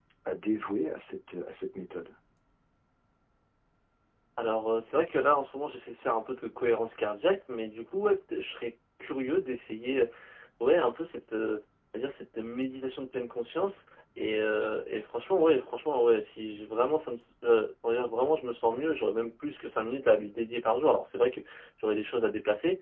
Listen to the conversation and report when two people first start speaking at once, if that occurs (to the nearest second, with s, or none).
none